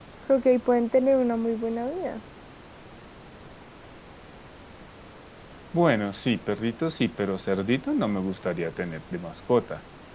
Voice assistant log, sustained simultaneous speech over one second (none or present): none